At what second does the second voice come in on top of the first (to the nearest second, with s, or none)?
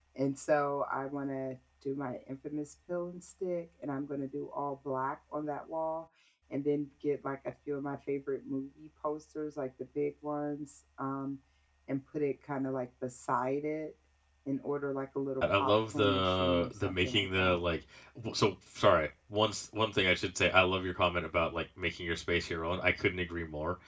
15 s